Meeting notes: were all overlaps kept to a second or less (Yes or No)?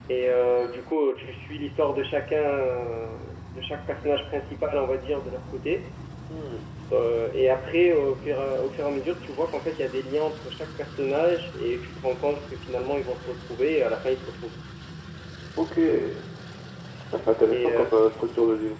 Yes